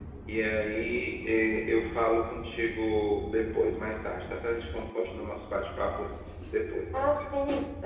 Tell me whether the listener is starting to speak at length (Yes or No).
Yes